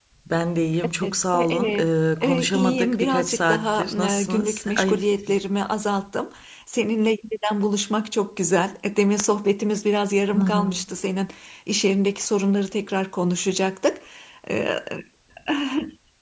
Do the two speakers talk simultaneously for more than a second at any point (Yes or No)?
Yes